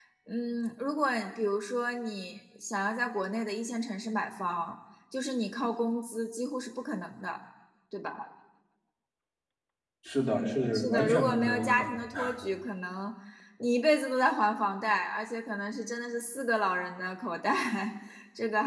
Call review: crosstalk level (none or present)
present